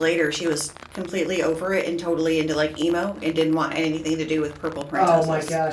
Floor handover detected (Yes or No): Yes